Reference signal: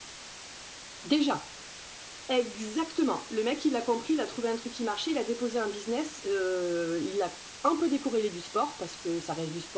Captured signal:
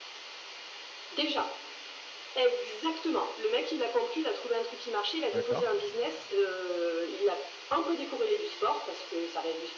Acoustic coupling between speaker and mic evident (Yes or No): Yes